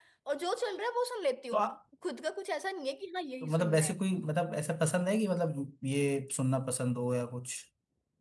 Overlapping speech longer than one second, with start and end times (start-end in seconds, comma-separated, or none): none